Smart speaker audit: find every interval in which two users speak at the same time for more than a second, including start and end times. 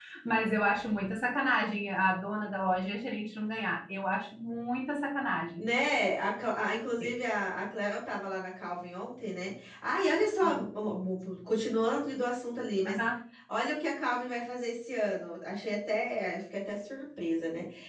none

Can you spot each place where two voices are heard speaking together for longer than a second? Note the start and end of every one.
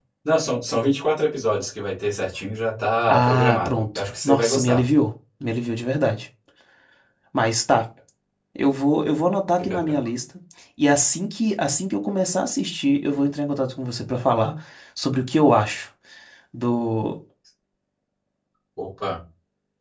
3.1-4.8

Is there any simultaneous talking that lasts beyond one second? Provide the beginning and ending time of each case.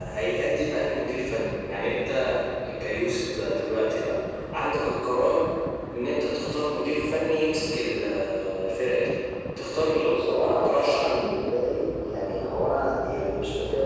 9.9-11.3

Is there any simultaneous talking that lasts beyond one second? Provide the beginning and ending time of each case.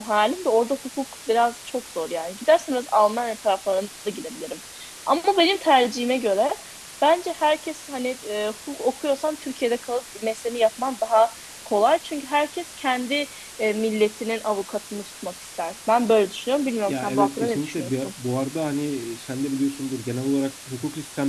16.9-18.1

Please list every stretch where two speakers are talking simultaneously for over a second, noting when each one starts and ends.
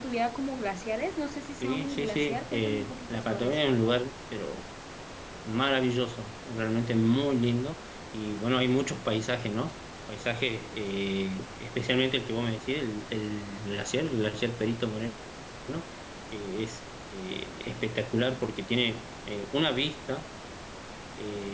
1.6-3.6

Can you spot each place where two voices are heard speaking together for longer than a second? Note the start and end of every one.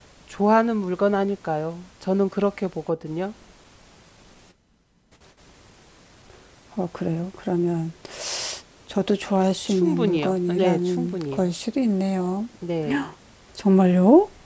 9.7-11.5

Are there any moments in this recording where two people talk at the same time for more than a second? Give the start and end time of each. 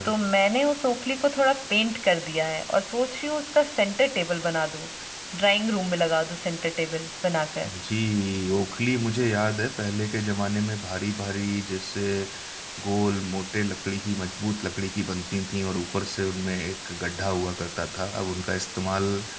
none

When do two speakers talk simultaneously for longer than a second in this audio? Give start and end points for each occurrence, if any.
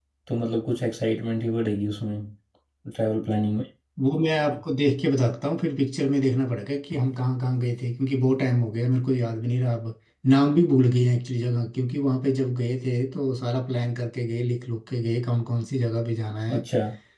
none

